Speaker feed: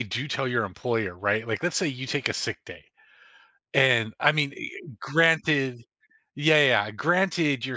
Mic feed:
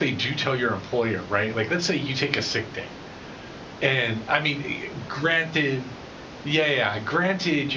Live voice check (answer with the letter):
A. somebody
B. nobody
B